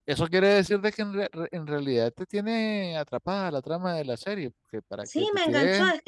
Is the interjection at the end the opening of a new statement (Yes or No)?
Yes